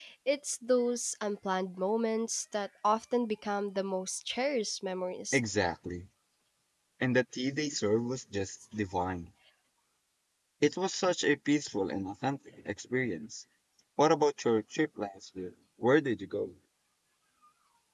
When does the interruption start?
none

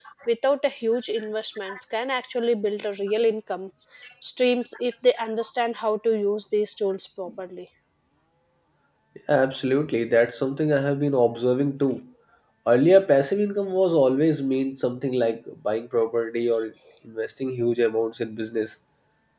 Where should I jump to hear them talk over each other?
none

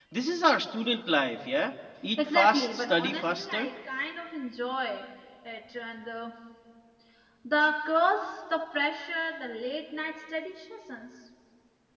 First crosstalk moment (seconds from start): 2.2 s

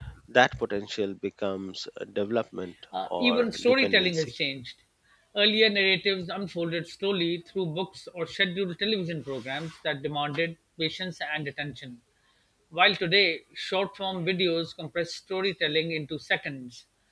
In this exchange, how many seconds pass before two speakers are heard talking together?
2.9 s

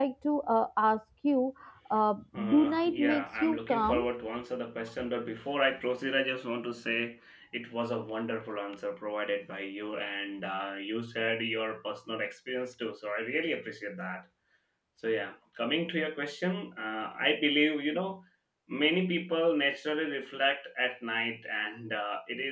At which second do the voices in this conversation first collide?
2.5 s

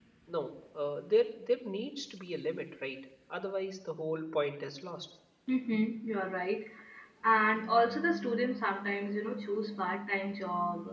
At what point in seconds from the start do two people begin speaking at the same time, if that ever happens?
none

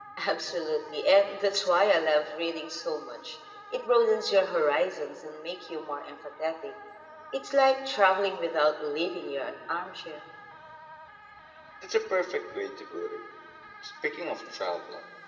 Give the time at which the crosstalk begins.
none

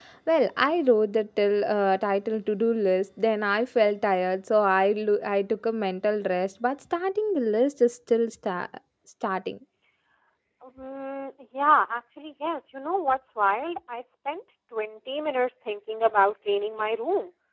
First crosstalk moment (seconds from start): none

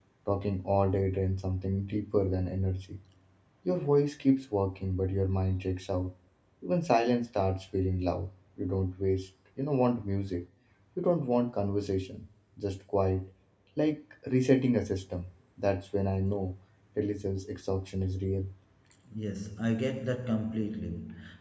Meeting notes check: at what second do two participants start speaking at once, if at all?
none

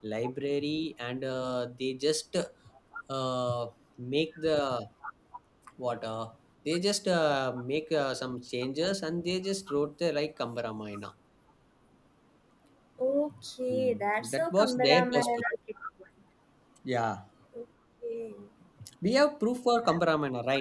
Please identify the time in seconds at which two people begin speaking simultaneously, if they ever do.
13.7 s

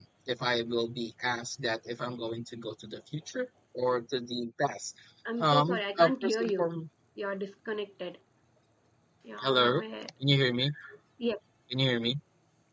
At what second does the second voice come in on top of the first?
5.4 s

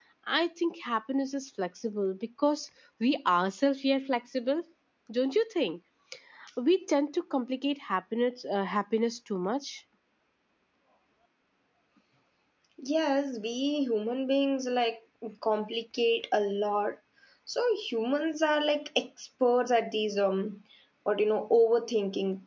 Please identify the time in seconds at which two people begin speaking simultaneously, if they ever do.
none

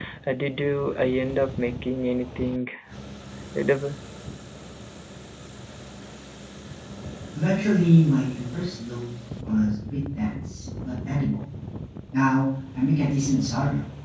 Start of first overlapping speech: none

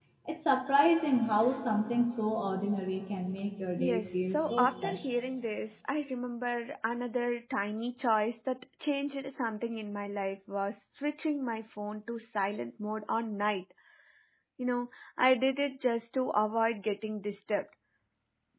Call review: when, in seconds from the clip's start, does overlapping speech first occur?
3.8 s

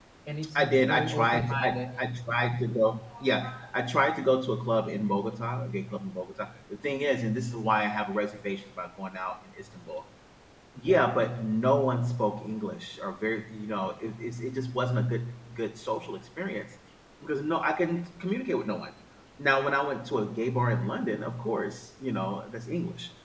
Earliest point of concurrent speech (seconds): 0.6 s

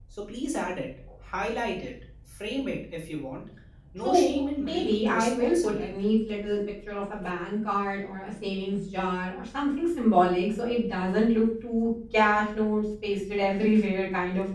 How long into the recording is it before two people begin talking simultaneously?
4.0 s

